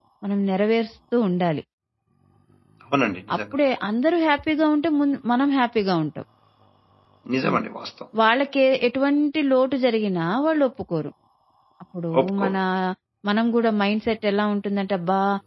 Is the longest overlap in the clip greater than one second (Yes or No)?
No